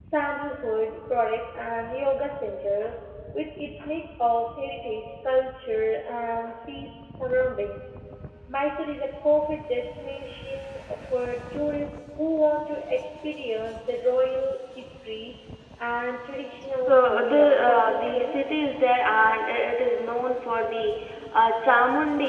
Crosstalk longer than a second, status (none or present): present